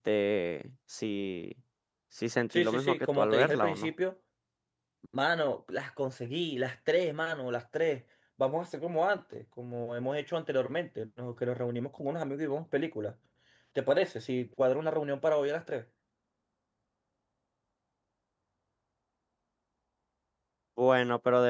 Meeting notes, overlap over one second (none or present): present